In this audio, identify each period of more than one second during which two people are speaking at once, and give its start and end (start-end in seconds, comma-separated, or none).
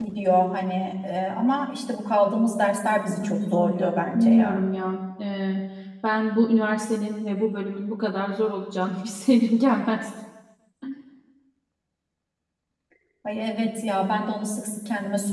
3.2-4.7